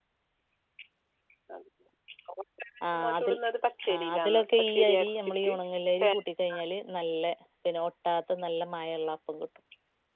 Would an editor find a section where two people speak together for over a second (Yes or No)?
Yes